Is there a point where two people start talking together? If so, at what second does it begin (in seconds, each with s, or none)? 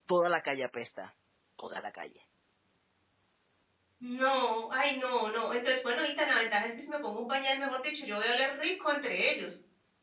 none